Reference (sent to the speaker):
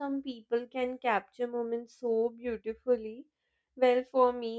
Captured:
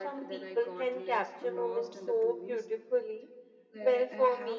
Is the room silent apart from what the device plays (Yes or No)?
No